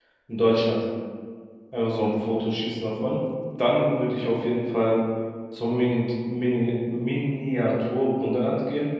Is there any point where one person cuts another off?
No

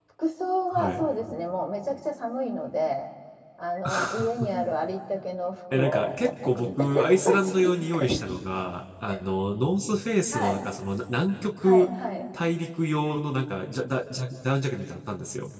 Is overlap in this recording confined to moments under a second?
No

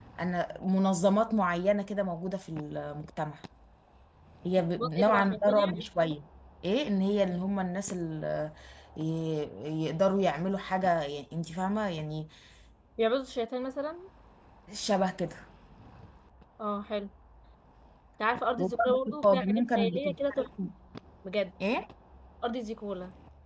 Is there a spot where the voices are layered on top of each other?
Yes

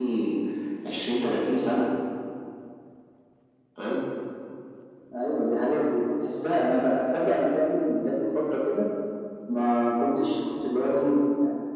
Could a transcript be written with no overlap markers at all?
Yes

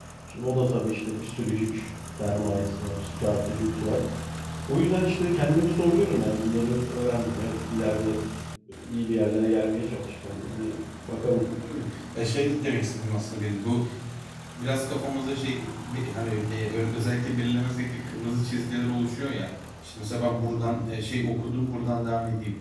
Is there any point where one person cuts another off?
No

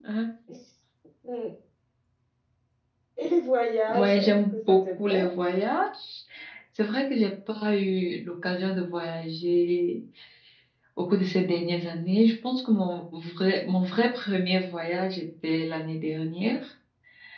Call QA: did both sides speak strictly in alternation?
No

